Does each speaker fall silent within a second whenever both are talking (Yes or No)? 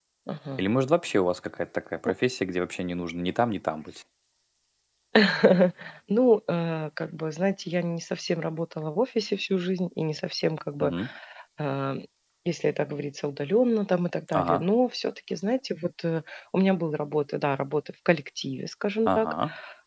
Yes